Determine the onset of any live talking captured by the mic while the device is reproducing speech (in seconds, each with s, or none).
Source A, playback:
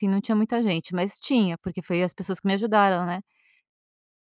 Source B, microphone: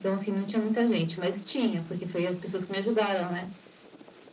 none